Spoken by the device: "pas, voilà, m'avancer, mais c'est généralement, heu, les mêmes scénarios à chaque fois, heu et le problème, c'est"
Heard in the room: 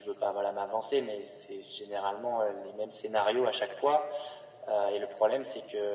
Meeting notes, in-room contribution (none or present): none